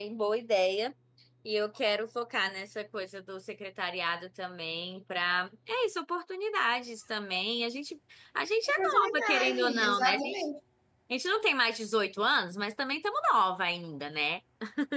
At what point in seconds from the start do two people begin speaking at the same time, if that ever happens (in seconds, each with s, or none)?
8.7 s